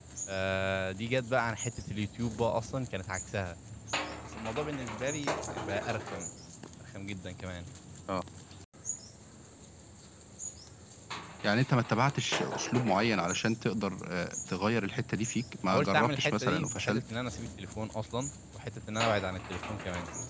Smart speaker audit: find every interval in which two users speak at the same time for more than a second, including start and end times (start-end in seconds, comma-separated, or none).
15.7-17.0